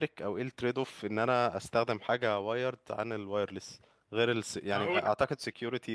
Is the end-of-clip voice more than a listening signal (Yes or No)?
No